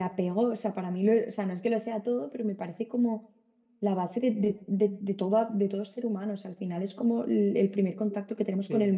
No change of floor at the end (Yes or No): No